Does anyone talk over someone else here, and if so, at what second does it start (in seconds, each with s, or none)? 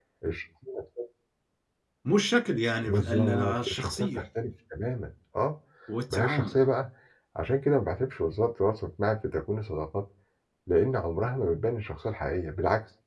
2.8 s